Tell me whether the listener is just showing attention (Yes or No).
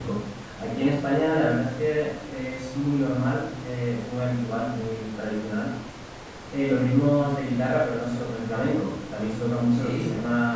Yes